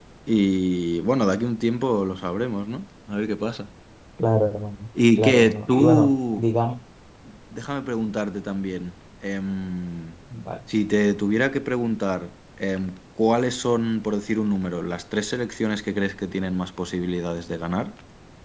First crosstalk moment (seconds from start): 5.2 s

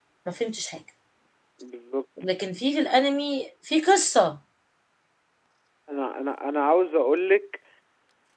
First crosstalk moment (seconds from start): none

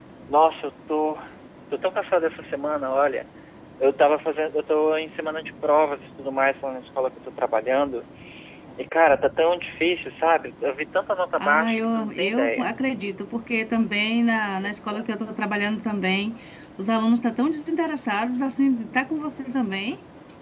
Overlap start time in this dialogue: 11.4 s

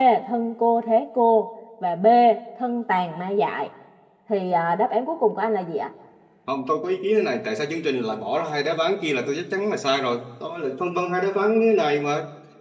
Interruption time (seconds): none

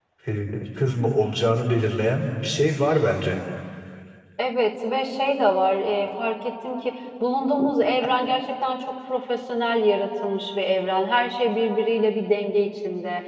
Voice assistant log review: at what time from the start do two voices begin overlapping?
none

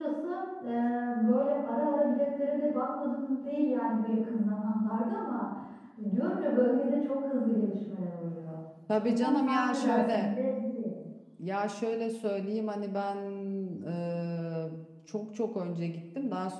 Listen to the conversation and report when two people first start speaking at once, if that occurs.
9.0 s

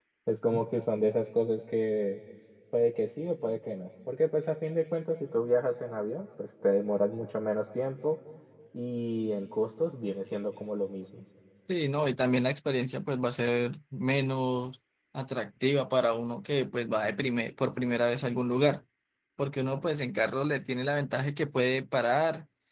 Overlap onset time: none

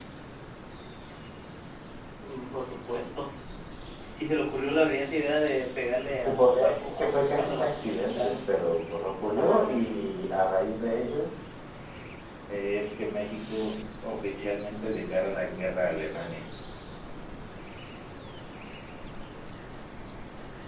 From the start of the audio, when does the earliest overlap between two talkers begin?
6.2 s

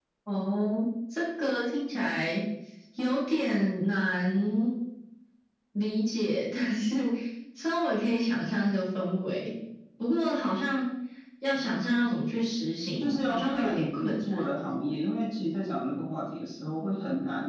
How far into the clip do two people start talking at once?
13.0 s

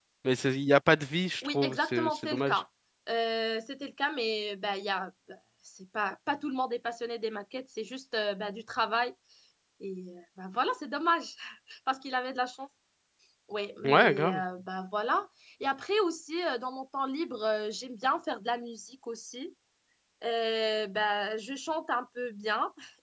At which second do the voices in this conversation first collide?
1.4 s

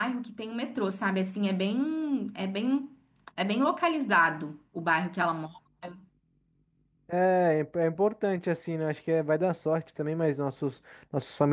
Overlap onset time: none

